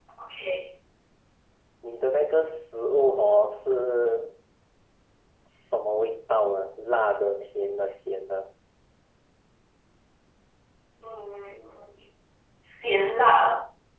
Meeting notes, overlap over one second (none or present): none